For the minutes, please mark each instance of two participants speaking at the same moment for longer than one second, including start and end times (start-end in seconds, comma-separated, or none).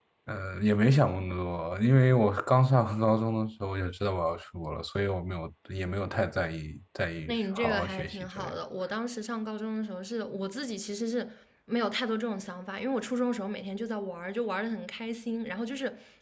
7.3-8.5